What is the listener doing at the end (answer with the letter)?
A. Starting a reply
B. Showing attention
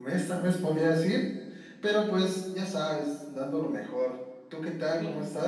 A